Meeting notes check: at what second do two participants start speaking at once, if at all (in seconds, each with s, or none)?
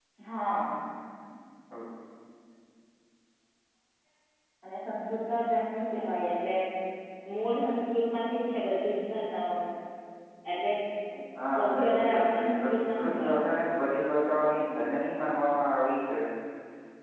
11.3 s